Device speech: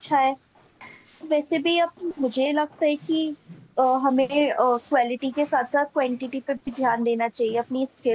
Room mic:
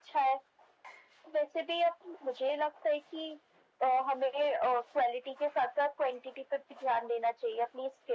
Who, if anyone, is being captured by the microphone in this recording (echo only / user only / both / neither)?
echo only